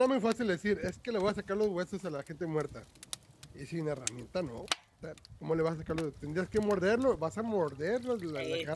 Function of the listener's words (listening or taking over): taking over